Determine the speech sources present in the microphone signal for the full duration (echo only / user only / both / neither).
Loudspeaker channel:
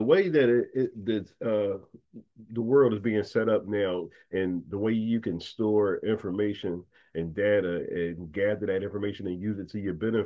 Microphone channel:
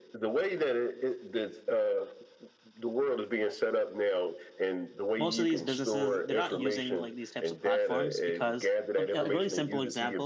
both